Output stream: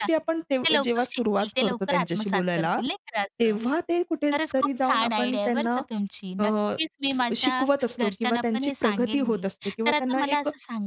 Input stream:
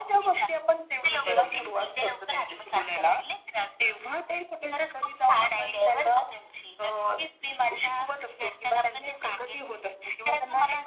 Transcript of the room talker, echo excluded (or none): बरोबर आहे.